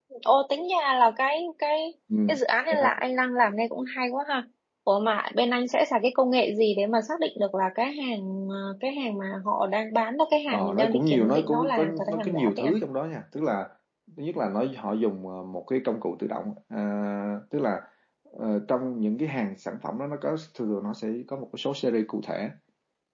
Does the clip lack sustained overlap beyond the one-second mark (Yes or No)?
No